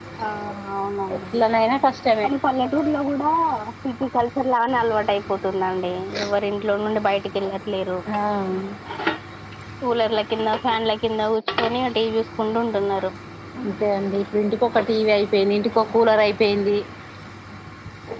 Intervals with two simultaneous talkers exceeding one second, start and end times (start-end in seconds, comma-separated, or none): none